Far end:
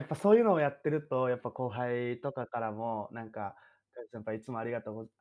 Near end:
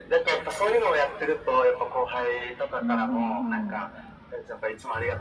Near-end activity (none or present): present